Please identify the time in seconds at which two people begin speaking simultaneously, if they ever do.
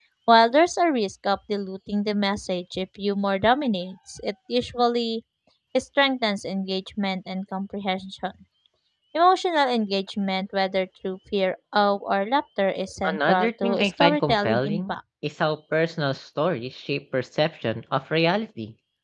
13.0 s

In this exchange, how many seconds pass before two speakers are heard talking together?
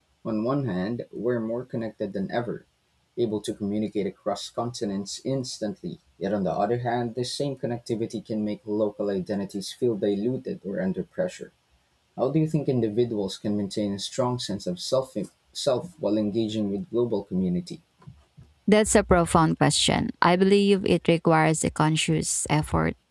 none

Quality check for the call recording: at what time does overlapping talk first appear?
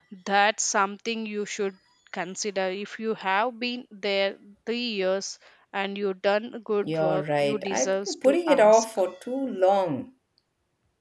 6.8 s

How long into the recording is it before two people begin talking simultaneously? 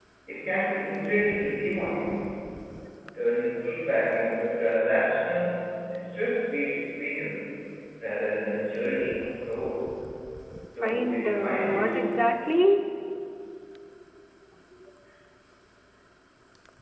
10.8 s

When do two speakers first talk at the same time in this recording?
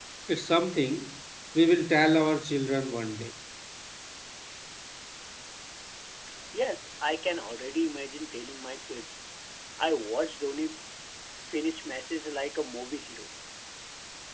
none

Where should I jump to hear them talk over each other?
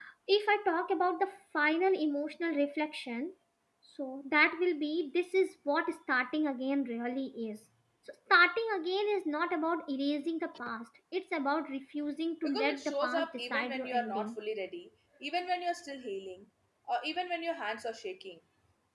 12.4 s

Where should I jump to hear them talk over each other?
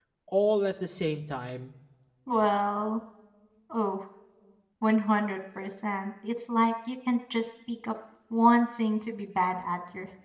none

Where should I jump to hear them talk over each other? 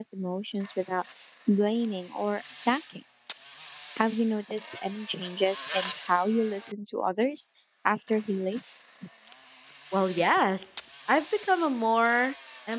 none

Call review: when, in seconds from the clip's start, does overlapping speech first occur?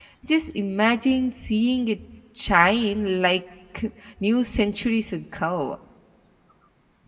none

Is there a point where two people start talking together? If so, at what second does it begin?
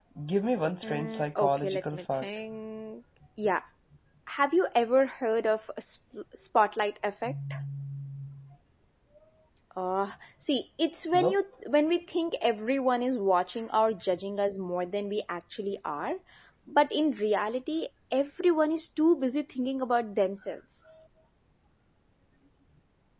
0.8 s

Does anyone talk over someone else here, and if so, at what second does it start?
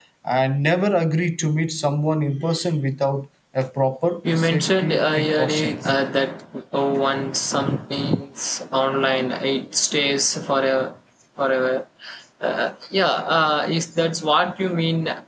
4.2 s

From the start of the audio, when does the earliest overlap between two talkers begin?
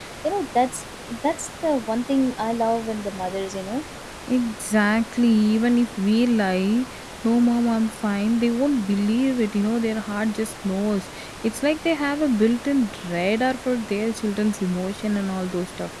none

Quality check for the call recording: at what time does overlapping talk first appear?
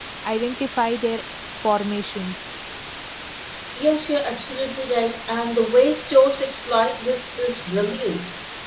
none

